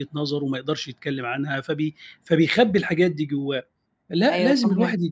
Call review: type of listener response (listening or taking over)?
listening